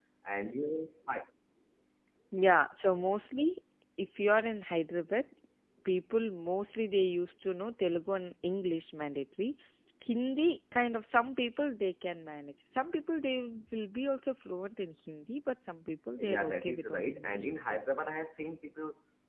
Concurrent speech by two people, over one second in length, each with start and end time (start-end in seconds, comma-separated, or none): 16.2-17.8